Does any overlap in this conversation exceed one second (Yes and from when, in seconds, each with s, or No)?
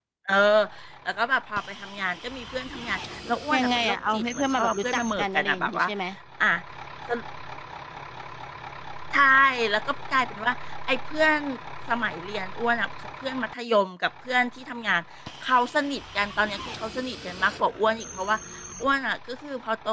Yes, from 3.5 s